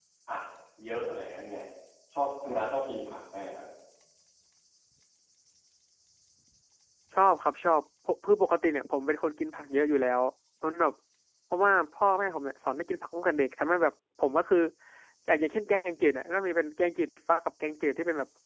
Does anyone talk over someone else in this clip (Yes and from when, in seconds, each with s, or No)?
No